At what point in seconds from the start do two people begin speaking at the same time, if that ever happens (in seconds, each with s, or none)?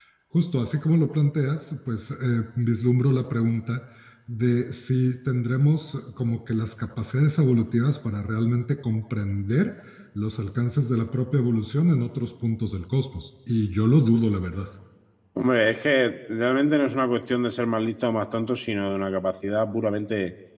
none